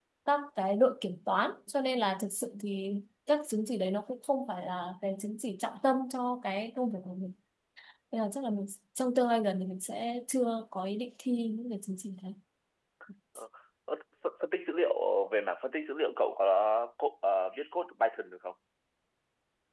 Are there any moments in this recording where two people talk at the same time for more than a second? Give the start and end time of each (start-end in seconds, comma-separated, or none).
none